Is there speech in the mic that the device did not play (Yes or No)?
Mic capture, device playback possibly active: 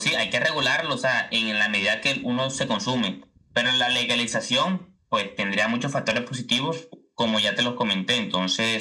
No